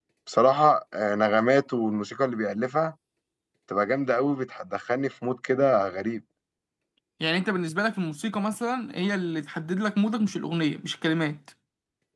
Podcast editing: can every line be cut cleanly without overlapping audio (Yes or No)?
Yes